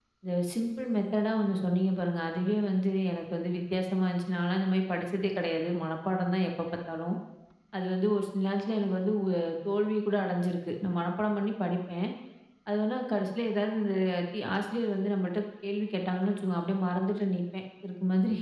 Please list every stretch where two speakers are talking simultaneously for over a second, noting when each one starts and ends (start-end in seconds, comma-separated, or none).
none